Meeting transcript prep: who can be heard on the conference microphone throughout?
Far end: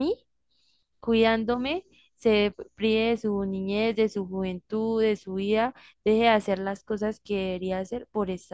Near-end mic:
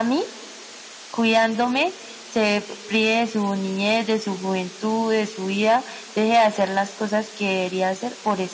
echo only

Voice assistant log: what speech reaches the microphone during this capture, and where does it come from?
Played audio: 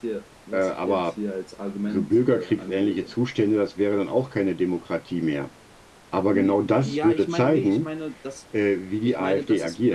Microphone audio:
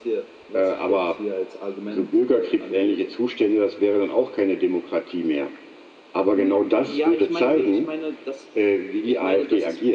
echo only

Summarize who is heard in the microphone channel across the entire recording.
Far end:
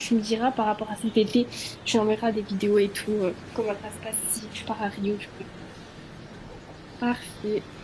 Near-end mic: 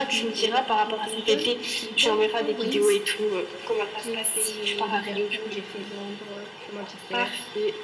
both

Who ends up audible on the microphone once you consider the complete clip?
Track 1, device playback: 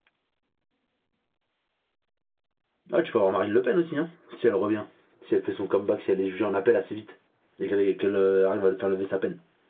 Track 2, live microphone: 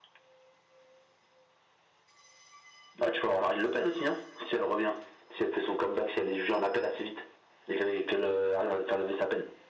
echo only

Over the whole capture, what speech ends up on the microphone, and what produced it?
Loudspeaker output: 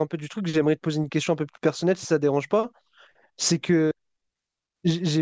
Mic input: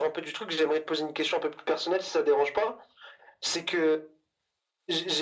echo only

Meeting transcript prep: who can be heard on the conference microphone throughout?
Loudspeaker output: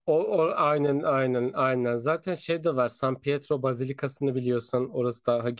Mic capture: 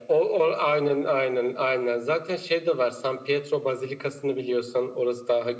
echo only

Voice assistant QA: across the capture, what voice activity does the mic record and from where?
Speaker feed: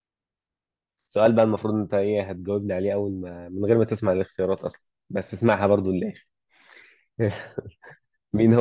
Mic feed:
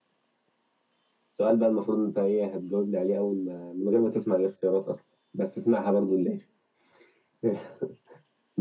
echo only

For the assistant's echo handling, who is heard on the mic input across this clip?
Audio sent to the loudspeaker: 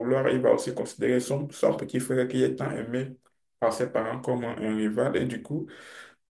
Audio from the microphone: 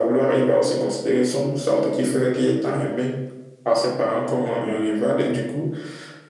echo only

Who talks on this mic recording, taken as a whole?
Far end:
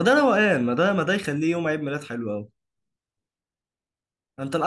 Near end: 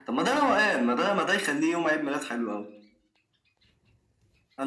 echo only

